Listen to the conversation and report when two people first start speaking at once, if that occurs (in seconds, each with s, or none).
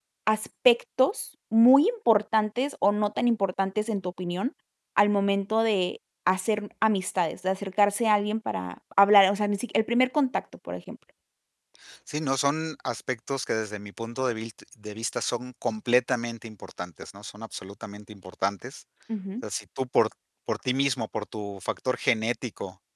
none